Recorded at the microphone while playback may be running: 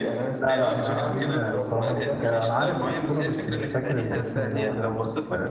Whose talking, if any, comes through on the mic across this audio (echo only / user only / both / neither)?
both